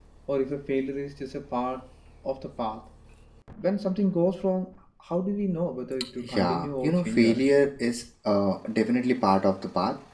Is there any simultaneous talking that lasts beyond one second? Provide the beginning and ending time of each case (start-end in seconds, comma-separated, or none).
6.3-7.6